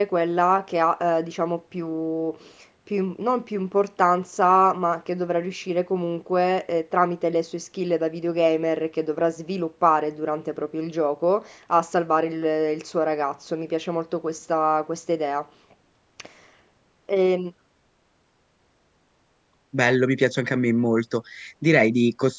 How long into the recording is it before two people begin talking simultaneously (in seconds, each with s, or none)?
none